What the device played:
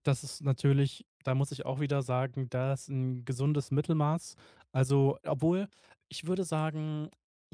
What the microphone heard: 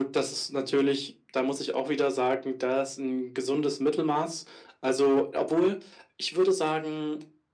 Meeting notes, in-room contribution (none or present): none